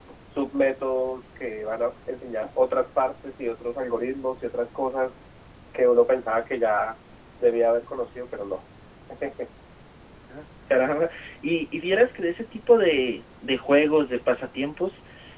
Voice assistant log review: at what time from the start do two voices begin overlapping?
none

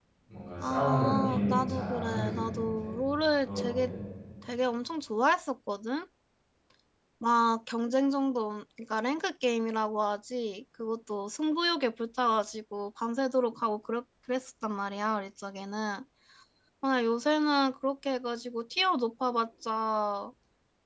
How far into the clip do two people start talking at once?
1 s

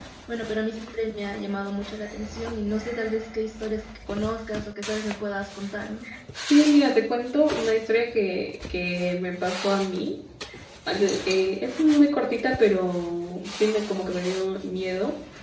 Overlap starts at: none

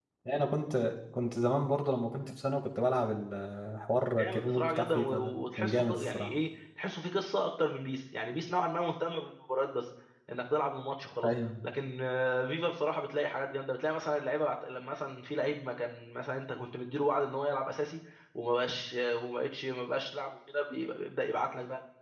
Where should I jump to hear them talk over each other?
4 s

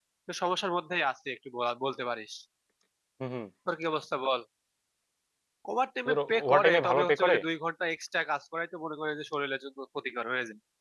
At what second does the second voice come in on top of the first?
6 s

